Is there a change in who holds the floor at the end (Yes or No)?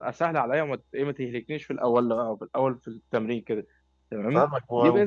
Yes